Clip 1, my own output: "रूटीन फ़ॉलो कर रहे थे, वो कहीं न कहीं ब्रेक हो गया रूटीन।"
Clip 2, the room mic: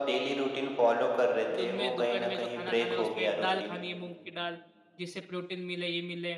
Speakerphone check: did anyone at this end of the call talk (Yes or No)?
Yes